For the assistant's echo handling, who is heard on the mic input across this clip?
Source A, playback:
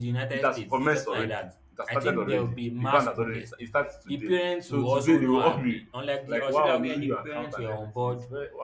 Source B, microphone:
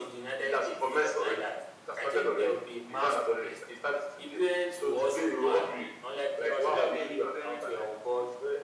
echo only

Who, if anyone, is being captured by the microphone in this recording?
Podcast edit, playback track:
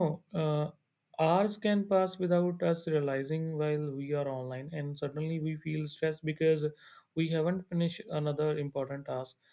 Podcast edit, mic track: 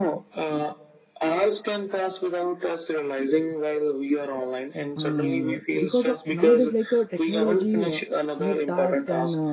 both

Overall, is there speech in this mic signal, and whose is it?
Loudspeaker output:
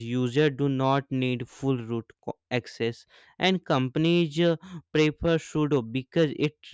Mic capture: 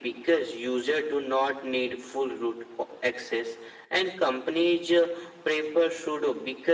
echo only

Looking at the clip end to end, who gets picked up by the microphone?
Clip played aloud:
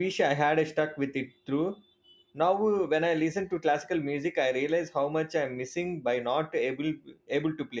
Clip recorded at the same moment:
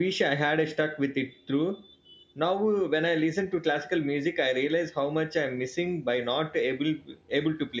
echo only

